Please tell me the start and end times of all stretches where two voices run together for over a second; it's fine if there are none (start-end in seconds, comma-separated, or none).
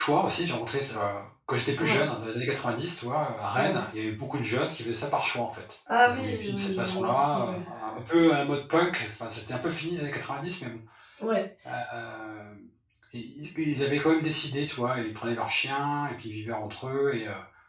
6.0-7.5